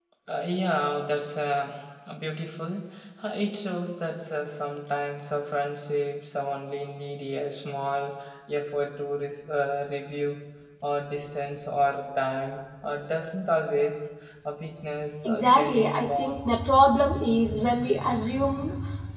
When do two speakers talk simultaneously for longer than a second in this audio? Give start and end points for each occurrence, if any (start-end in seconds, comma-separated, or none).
15.2-16.6